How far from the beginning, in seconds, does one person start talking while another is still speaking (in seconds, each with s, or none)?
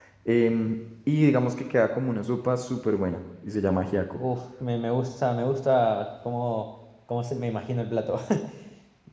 none